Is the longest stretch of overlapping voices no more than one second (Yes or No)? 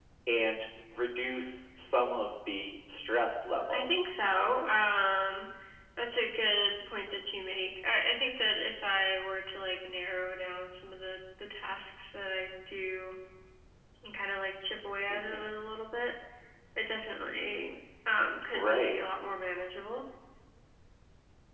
Yes